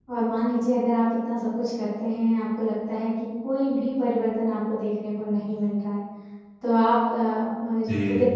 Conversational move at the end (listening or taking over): listening